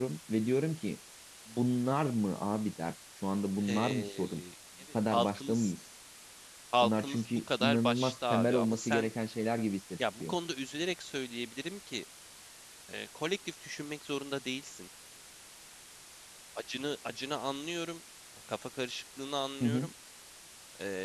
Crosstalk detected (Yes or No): Yes